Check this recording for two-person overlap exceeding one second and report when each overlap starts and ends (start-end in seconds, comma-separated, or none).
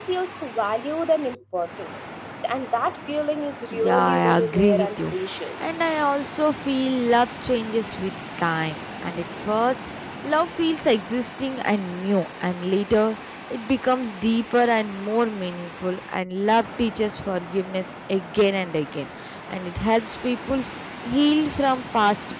3.7-5.1